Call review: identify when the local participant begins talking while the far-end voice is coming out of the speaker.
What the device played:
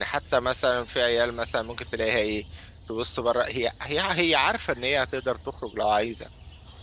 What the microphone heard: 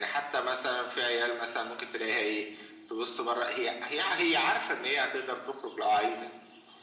none

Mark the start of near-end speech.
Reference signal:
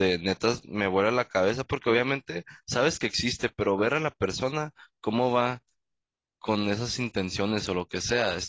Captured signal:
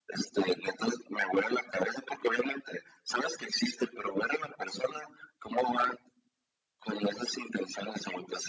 none

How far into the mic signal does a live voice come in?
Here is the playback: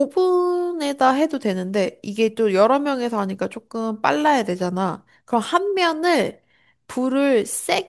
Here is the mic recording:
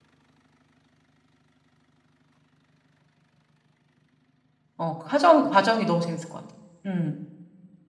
4.8 s

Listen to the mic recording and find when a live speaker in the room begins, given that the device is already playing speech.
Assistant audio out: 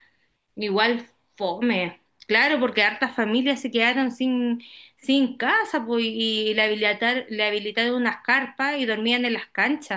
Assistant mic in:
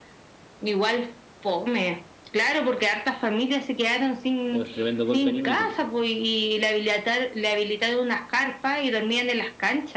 4.5 s

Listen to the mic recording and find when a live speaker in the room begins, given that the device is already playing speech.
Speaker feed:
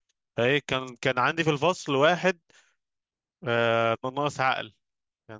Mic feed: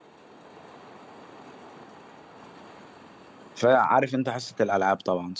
3.5 s

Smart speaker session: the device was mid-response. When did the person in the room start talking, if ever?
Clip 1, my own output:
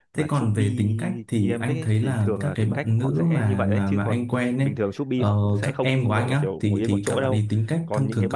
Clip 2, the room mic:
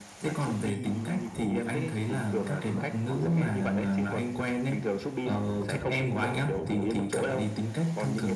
none

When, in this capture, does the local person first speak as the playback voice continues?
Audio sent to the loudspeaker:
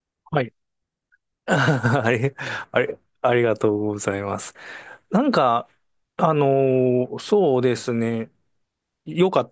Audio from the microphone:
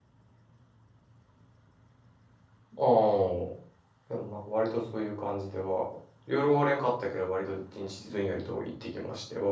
2.8 s

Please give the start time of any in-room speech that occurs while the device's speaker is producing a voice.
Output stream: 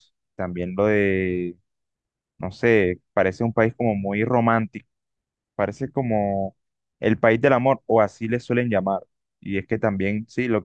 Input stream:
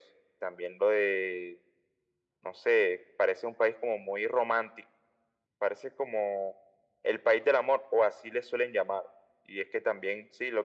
none

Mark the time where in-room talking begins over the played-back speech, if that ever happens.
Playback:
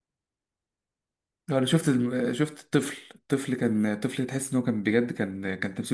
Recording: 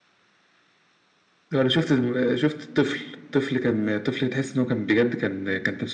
none

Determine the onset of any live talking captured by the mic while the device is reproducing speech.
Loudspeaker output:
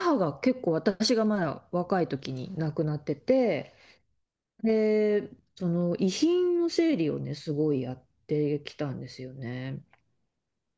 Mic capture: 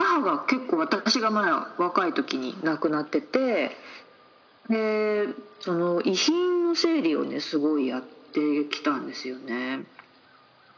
none

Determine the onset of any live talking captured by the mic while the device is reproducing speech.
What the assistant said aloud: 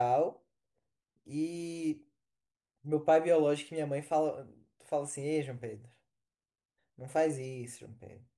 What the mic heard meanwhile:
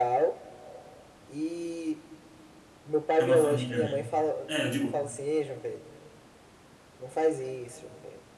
3.2 s

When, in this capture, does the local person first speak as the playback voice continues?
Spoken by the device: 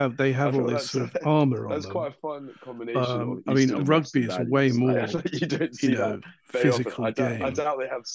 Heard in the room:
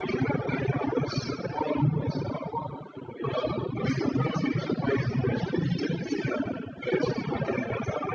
none

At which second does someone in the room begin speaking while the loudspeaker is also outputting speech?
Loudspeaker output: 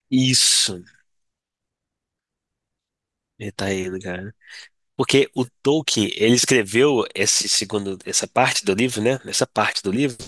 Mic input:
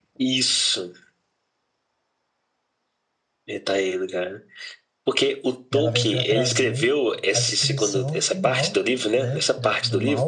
5.7 s

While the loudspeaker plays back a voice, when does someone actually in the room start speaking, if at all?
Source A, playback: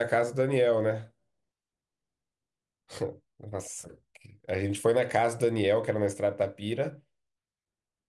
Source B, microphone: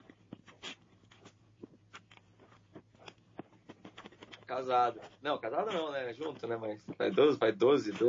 4.5 s

